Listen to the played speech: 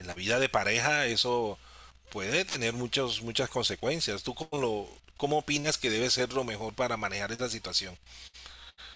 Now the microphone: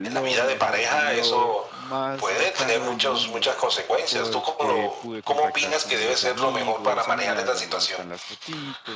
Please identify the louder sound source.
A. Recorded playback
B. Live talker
A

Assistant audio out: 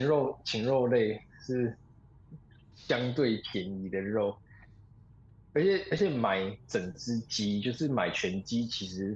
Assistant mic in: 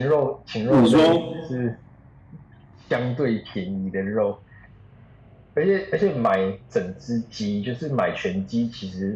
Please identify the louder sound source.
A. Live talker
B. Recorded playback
A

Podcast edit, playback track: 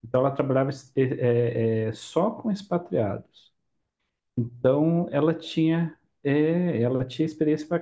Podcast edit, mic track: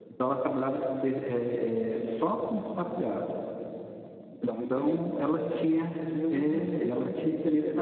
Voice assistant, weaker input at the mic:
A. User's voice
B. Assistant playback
A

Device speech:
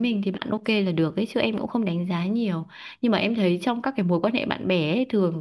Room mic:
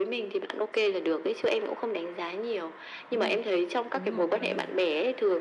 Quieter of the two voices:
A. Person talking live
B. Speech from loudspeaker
A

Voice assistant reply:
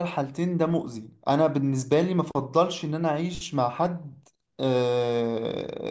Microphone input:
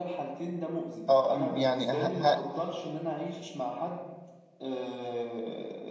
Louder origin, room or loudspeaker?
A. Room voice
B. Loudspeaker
A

